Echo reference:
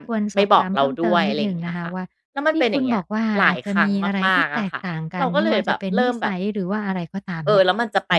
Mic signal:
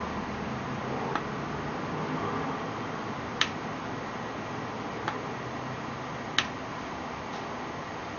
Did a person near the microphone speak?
No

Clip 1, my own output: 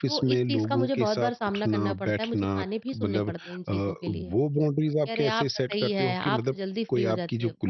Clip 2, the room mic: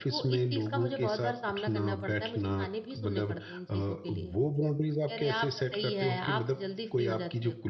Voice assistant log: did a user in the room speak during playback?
No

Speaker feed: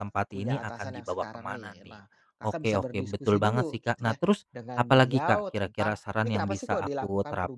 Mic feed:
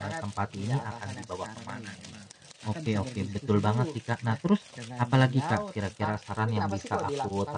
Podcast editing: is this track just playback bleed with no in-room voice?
Yes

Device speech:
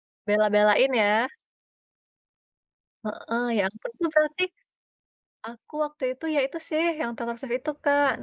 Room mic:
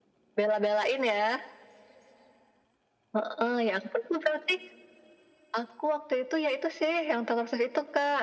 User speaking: No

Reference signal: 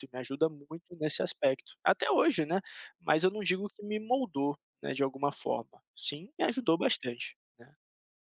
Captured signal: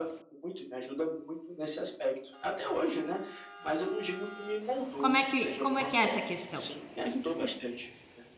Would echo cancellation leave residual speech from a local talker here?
Yes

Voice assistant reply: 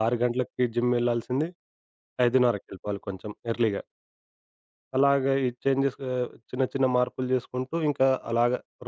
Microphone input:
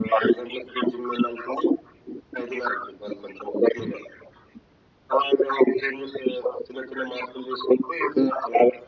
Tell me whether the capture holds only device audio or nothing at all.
Yes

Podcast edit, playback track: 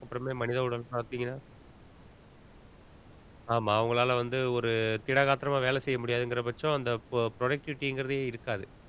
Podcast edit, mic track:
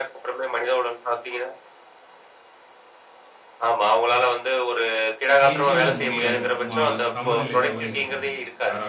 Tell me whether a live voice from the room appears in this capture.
Yes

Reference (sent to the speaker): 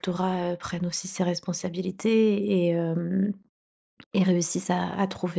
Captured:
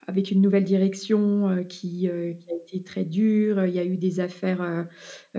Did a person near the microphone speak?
Yes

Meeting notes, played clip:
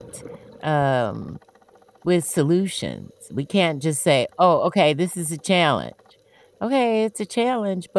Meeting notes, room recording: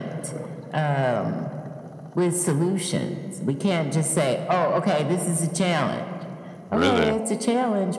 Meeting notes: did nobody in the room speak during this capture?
No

